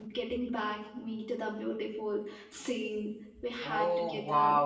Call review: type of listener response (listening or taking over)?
taking over